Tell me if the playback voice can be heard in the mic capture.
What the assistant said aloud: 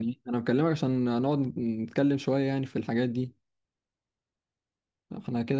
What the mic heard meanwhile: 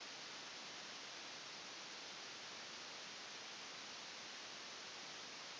No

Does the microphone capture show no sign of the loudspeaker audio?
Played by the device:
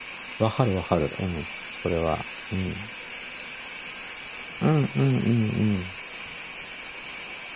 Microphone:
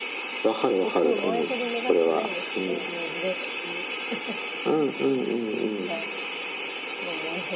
No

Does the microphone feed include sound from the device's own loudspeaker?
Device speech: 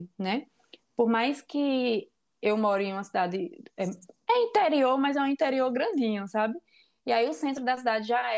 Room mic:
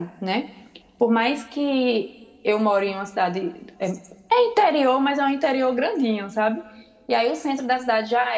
Yes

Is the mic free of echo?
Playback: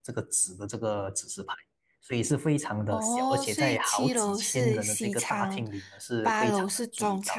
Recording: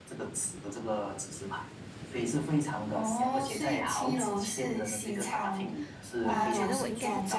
No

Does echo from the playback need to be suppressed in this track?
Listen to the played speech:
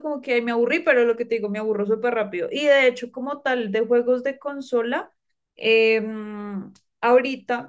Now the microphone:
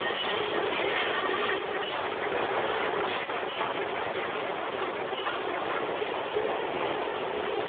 No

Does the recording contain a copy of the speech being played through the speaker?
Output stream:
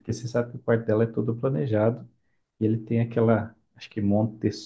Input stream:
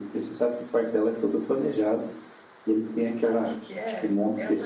Yes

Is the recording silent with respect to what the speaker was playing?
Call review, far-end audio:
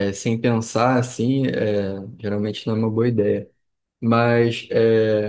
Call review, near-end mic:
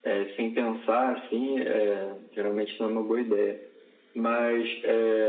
No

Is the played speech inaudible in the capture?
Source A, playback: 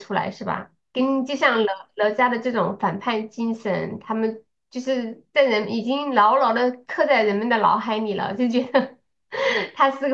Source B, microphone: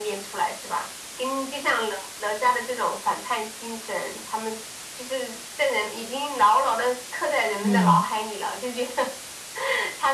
No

